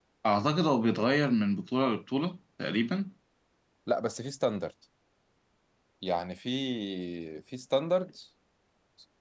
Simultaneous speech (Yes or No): No